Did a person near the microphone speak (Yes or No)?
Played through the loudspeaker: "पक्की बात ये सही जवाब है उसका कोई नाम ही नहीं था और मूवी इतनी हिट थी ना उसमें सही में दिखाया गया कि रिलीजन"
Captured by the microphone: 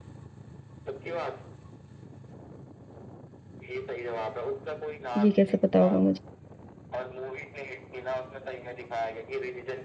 Yes